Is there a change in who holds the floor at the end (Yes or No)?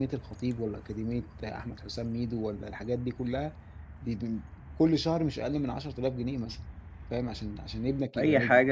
Yes